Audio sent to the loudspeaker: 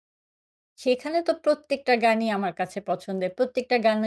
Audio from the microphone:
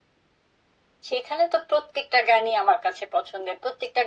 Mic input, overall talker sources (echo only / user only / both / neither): echo only